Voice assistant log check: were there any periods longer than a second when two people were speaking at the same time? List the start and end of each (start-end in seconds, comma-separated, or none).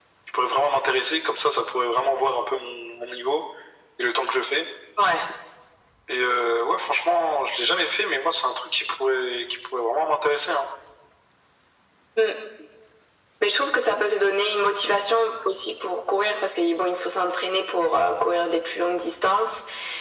none